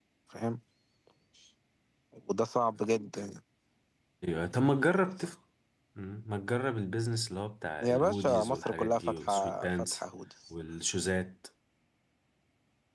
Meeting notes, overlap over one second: present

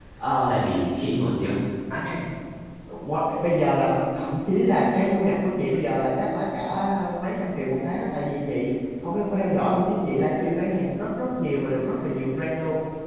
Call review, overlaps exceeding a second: none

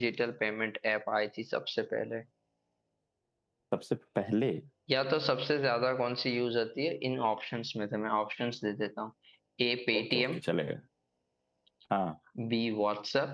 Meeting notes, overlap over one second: none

